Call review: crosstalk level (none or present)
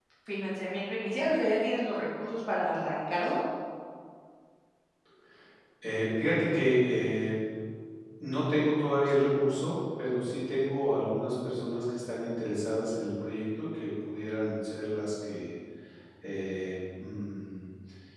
none